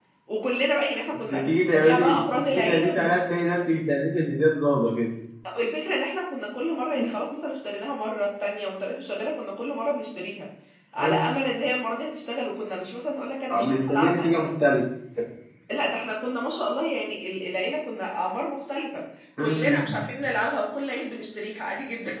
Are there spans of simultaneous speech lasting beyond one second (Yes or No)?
Yes